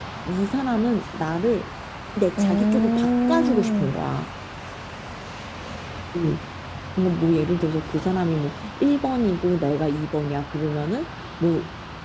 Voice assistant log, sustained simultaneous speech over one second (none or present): present